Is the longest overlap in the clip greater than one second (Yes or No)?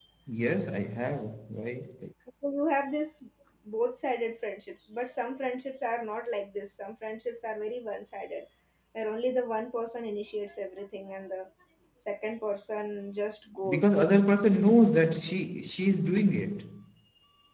No